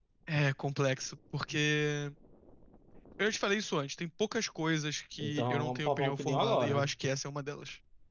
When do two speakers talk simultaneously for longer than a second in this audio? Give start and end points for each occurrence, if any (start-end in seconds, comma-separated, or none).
5.2-6.9